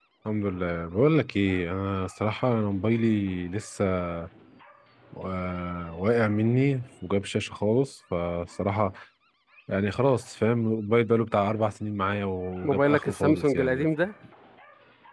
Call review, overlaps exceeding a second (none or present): present